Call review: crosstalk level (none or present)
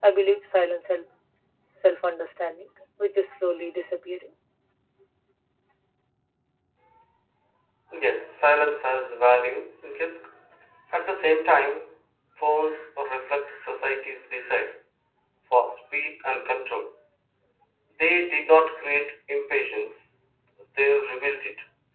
none